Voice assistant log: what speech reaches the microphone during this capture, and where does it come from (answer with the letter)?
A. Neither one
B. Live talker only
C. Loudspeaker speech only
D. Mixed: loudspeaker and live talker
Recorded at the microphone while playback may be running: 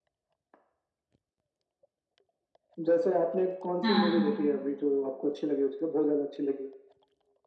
D